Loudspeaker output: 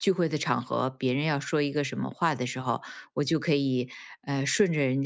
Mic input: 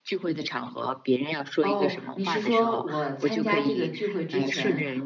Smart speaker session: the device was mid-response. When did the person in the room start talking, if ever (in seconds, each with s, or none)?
1.6 s